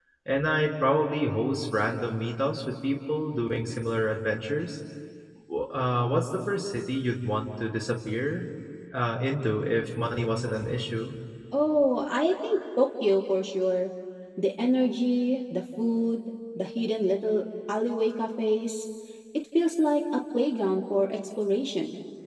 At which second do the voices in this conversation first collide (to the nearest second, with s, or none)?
none